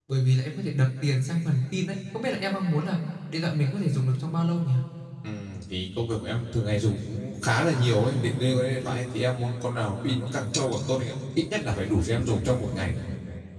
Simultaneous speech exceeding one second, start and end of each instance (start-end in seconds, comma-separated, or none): none